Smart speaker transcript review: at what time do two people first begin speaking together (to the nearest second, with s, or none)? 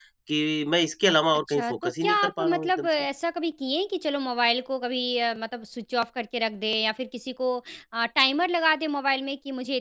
1 s